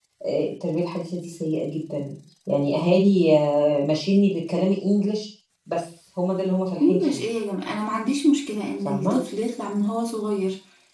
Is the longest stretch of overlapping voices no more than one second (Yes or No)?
Yes